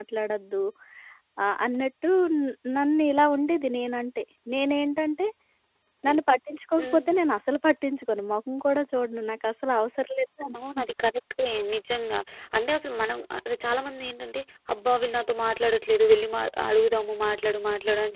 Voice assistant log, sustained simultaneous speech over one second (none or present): none